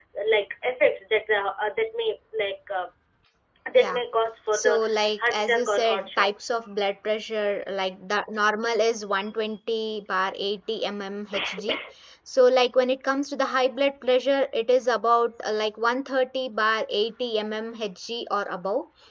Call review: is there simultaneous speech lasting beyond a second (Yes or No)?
Yes